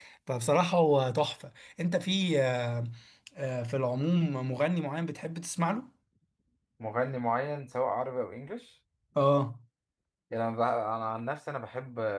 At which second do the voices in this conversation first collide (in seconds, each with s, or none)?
none